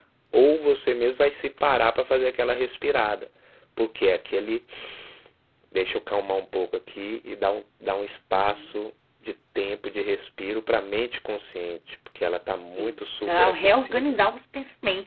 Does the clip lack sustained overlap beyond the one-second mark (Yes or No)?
No